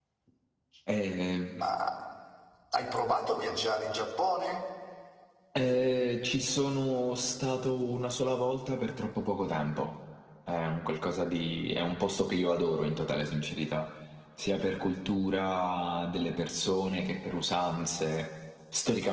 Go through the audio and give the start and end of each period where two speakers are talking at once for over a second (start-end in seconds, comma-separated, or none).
none